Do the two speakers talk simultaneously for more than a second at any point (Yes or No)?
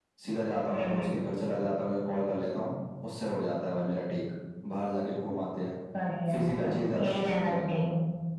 Yes